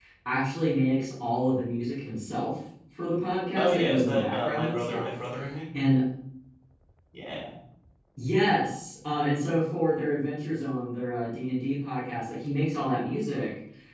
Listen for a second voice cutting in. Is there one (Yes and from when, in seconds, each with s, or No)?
Yes, from 3.5 s